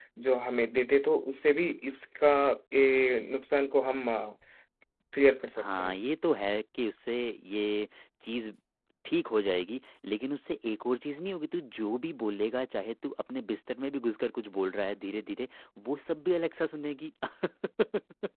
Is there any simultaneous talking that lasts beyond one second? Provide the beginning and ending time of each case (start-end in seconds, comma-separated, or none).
none